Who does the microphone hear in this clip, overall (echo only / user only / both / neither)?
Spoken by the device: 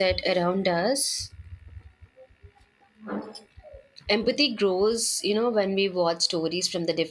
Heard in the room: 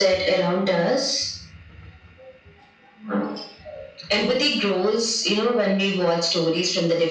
echo only